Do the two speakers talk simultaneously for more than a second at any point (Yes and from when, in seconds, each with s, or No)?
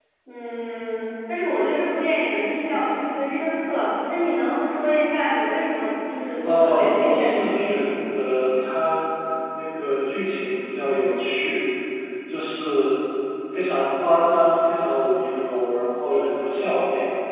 Yes, from 6.4 s